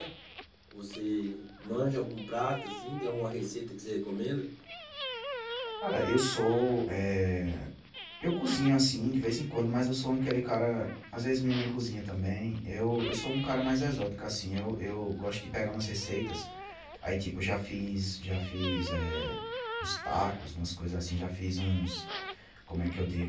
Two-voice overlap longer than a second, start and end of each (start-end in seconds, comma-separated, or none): none